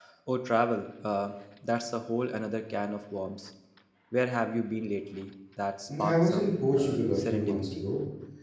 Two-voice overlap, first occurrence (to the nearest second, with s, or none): 6 s